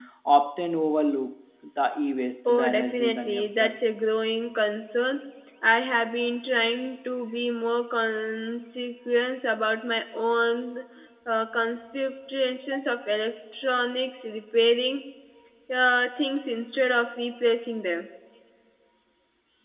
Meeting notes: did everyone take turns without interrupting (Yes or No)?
No